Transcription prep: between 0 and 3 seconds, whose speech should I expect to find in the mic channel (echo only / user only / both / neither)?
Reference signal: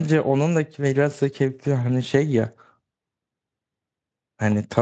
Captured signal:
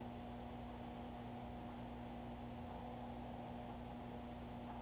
neither